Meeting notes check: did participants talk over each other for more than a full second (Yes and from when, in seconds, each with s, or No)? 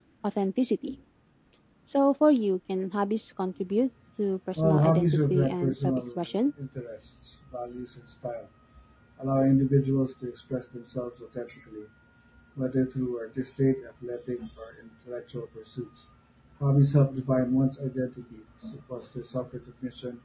Yes, from 4.6 s